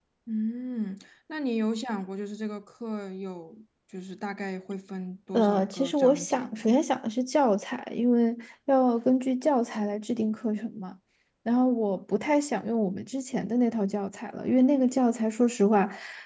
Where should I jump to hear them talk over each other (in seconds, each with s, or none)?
5.3 s